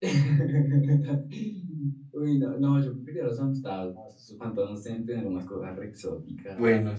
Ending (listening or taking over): listening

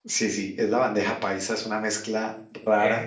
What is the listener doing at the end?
listening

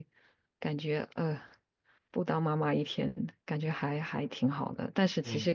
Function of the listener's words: listening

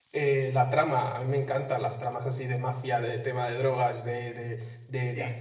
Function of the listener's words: listening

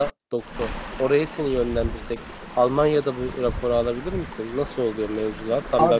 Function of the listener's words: taking over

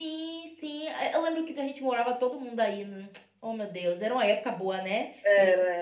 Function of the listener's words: taking over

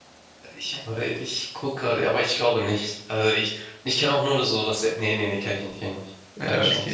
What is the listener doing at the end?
taking over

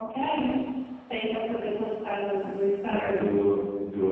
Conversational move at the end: taking over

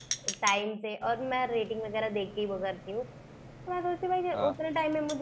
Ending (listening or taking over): listening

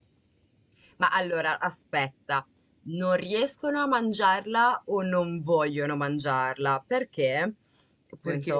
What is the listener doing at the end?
listening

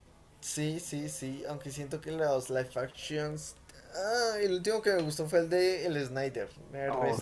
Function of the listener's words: taking over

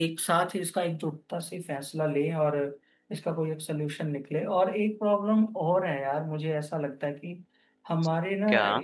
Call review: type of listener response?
listening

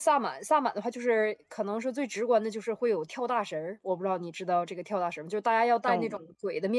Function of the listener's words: listening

